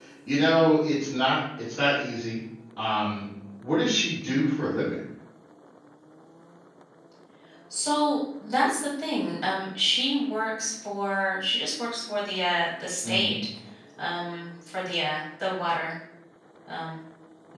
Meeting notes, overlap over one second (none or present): none